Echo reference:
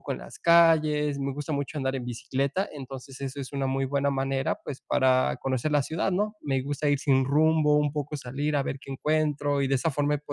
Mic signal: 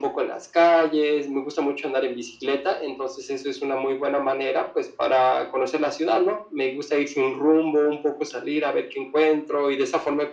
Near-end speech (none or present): none